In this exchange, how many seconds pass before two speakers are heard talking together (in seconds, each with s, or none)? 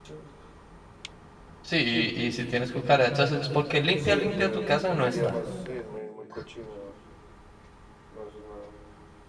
4.0 s